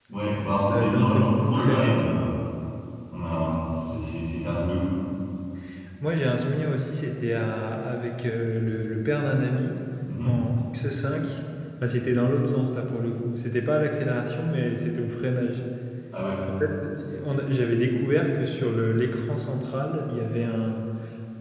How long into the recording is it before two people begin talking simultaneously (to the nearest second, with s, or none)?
1 s